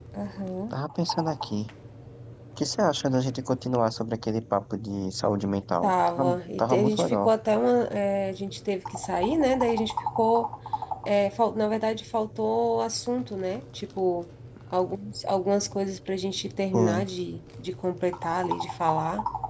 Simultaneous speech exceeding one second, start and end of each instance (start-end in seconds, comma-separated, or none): 5.8-7.3